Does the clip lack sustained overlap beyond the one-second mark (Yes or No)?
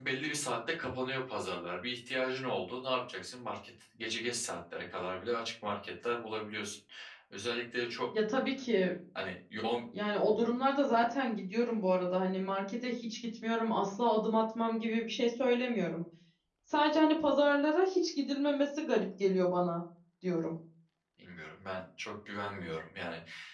Yes